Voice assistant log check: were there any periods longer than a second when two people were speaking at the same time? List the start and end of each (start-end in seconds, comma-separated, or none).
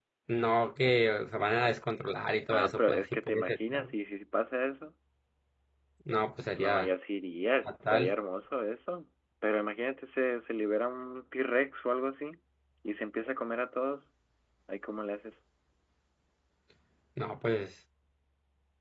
2.5-3.9